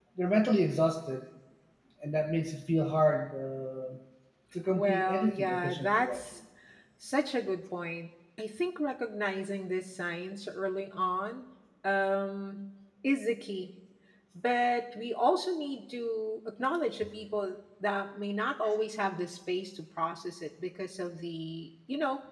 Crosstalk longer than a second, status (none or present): present